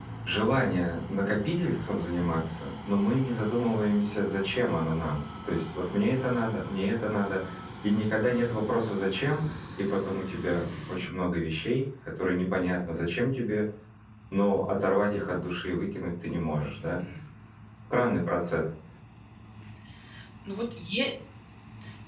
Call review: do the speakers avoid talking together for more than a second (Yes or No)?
Yes